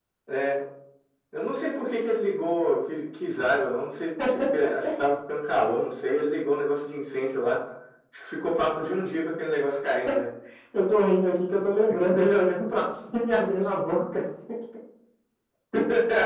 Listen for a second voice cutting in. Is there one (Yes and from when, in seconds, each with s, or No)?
No